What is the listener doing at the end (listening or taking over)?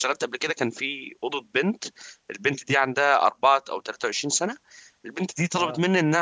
listening